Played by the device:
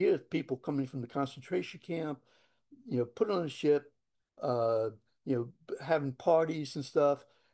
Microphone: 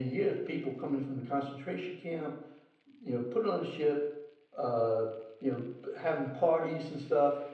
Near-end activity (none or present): none